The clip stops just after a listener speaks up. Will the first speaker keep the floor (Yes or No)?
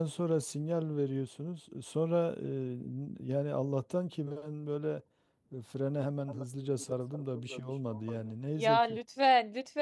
No